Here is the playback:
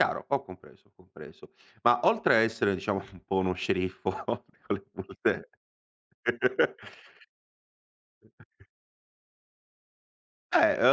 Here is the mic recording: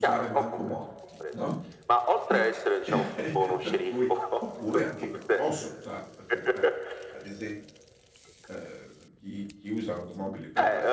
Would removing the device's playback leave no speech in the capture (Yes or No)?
No